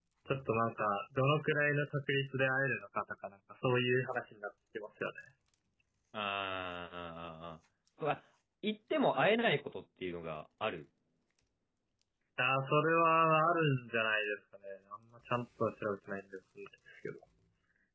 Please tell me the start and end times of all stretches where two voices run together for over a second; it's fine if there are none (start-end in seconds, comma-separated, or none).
none